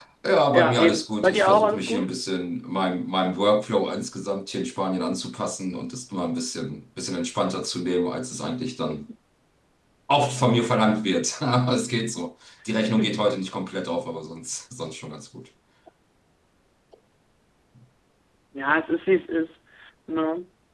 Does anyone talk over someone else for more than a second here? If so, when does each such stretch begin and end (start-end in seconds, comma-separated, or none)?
0.5-2.0